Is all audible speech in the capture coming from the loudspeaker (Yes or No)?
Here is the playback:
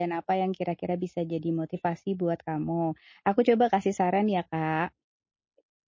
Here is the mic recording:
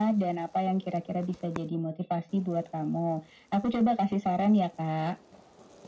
Yes